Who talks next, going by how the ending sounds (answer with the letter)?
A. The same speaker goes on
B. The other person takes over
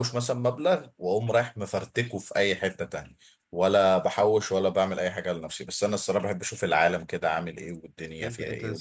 B